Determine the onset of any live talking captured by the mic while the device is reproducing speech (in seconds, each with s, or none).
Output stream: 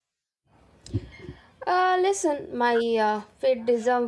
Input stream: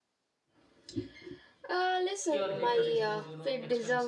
2.3 s